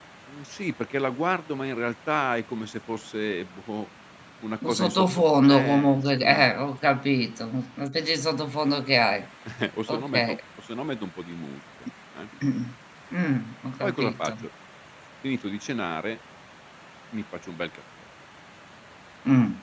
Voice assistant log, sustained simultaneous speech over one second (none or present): present